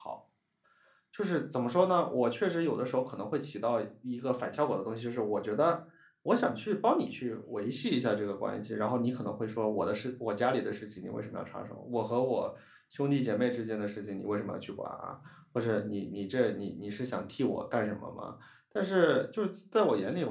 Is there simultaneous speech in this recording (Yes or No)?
No